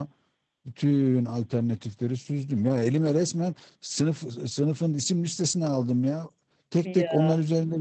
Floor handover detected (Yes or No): No